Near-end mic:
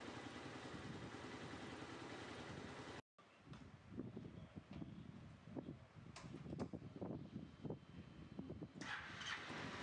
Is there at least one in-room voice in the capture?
No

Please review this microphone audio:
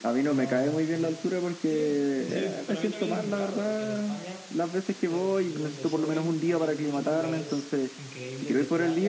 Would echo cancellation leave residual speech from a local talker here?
Yes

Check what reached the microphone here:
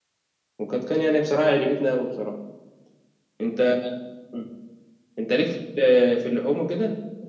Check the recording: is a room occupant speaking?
Yes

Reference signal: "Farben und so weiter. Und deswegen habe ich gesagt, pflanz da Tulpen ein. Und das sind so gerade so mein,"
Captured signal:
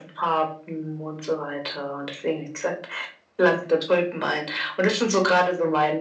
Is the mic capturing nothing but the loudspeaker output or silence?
Yes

